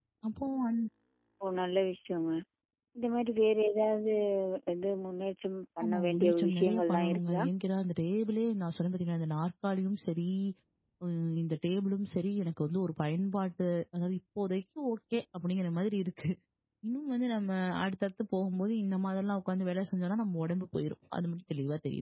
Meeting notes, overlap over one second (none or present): present